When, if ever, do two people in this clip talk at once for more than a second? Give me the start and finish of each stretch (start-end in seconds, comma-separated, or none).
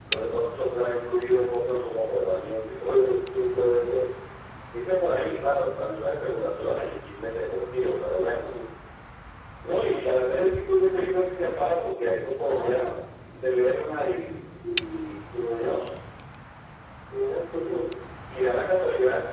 none